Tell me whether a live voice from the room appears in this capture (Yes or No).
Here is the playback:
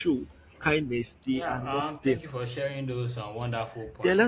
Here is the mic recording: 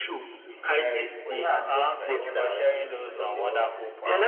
Yes